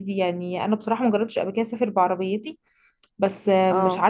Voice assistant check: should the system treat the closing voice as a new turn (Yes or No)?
No